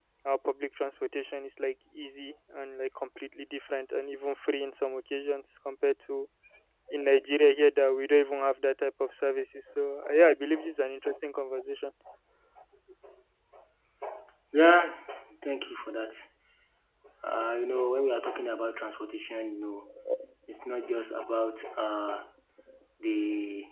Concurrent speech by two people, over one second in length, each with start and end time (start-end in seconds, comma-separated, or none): none